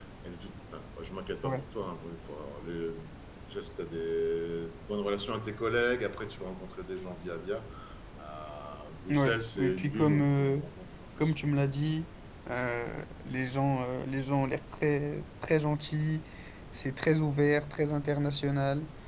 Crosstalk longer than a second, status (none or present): present